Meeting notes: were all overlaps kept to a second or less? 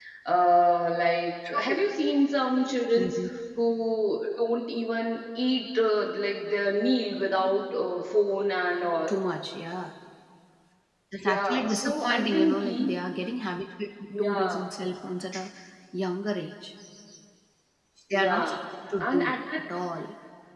No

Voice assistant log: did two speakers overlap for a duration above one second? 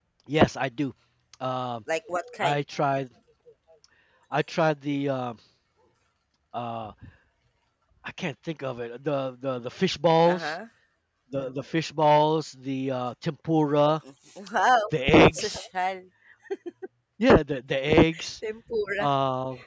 No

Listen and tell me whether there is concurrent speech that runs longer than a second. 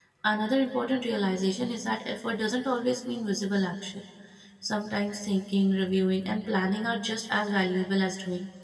No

